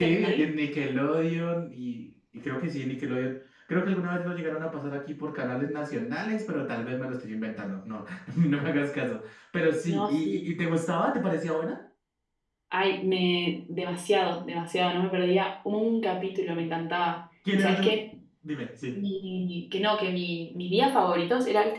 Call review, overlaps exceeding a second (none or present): none